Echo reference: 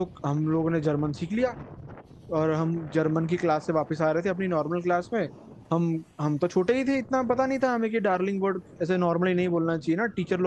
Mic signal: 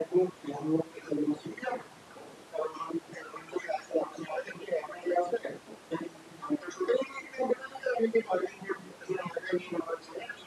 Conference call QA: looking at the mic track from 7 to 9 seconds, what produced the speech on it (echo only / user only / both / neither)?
echo only